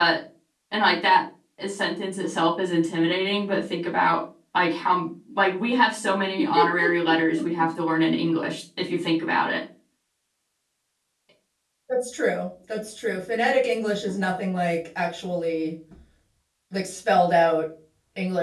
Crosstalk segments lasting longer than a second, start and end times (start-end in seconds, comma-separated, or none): none